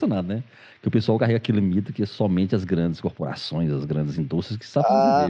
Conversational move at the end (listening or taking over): taking over